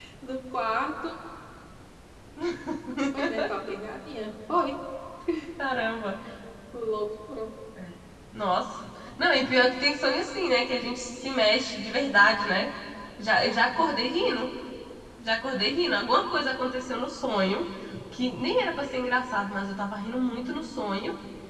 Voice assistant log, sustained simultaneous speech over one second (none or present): none